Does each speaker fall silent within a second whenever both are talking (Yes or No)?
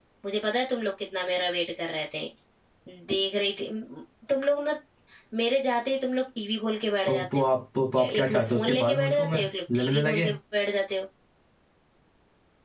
No